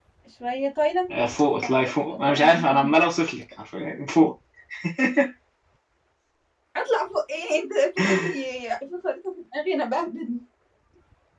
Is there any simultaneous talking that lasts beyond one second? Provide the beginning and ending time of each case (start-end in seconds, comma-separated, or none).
1.6-2.9